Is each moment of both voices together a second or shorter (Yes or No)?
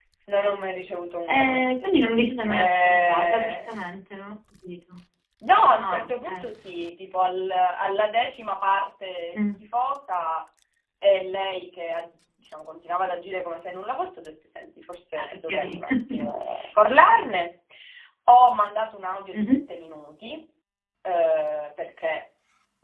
No